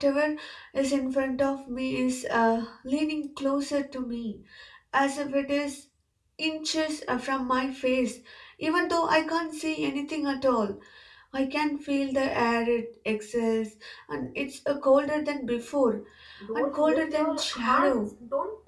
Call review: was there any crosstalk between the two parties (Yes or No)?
Yes